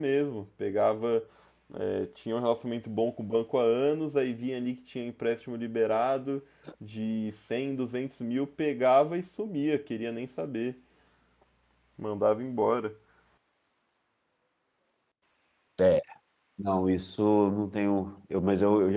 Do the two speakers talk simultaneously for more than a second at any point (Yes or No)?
No